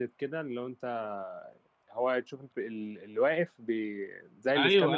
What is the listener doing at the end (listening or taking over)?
taking over